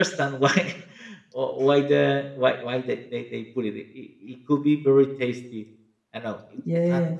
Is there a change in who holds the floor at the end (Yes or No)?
No